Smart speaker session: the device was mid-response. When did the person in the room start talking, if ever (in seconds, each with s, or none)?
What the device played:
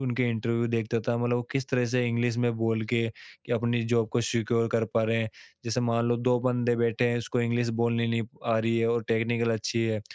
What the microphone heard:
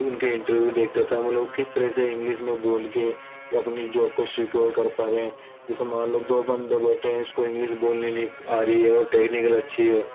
none